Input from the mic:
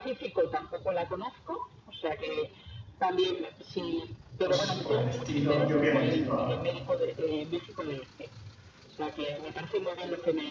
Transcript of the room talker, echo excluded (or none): cosas por el estilo, y obviamente toda,